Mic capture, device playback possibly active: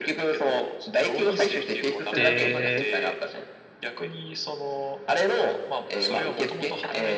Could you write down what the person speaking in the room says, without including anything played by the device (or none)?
で、